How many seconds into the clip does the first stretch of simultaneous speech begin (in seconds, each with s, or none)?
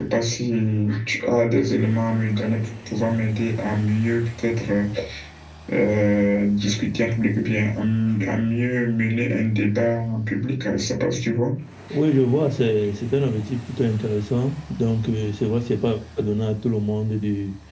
none